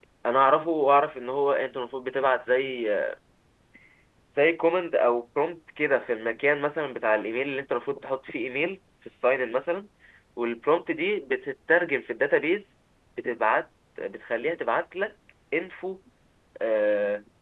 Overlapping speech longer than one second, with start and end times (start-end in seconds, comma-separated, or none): none